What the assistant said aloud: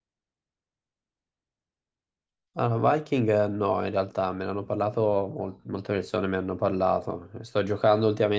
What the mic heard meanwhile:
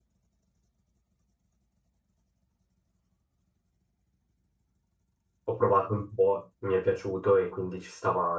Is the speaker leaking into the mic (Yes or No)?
No